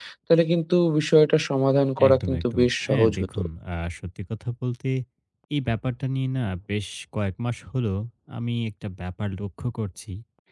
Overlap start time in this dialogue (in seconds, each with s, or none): 2.0 s